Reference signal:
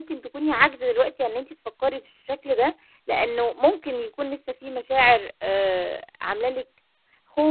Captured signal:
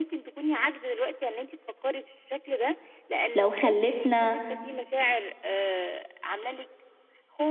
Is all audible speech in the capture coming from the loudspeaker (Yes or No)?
No